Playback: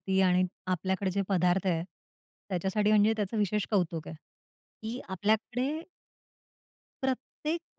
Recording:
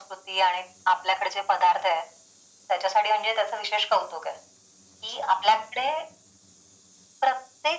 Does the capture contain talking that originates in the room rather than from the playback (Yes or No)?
No